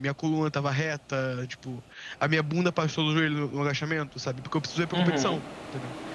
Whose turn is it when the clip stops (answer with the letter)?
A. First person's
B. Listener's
A